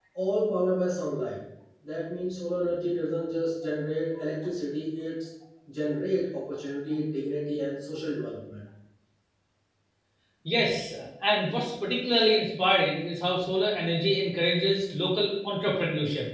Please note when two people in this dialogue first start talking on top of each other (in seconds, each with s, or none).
none